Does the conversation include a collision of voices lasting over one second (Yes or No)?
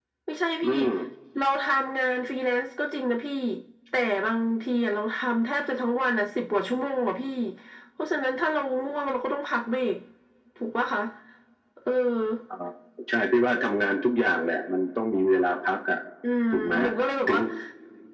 No